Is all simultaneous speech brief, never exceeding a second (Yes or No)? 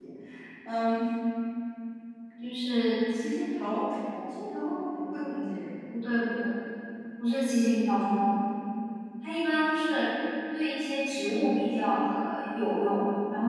Yes